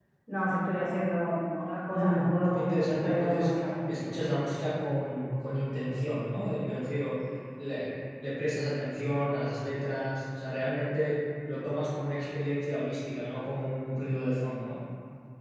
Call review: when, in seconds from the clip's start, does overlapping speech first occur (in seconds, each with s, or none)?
1.9 s